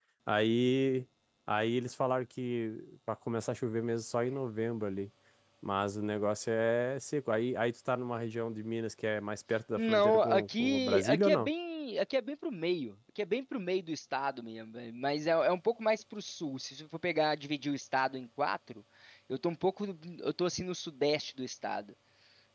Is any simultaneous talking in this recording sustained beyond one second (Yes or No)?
Yes